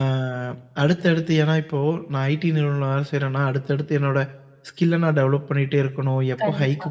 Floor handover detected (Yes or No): No